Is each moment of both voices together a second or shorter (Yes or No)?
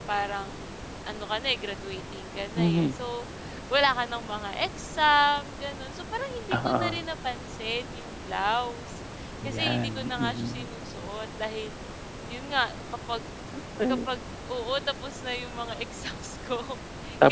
No